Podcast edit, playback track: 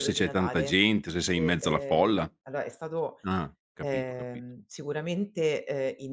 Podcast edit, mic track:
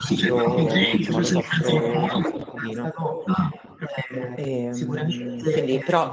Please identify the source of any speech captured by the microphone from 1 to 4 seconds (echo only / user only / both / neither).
both